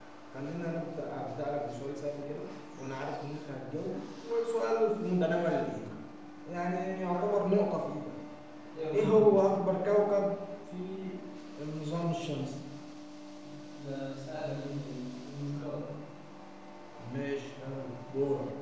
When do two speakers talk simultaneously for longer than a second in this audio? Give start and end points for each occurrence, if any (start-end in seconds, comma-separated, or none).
none